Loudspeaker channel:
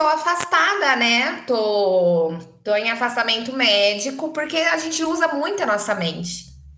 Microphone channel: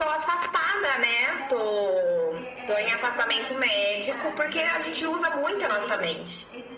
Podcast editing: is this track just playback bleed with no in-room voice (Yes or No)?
No